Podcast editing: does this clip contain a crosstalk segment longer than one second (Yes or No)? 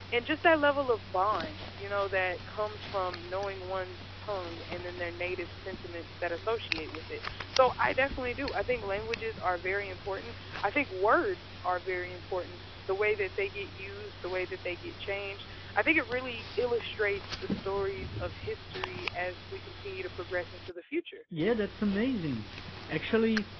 No